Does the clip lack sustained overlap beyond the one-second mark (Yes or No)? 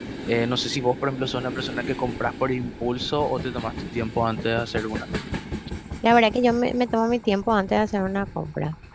Yes